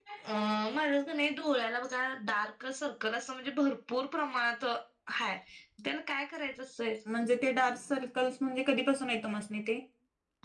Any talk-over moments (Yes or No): No